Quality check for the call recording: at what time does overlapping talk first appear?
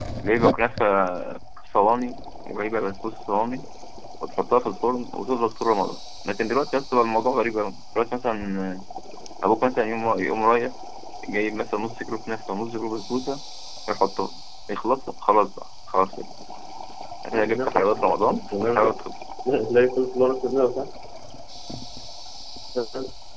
17.3 s

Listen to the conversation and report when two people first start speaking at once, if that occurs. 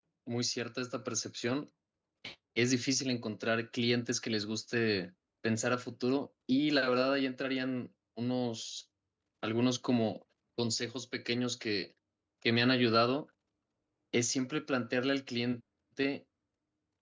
none

